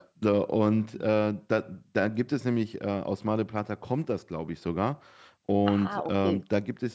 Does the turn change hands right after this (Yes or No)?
No